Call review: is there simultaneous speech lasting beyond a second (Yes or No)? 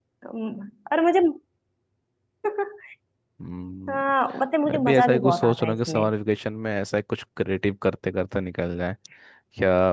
Yes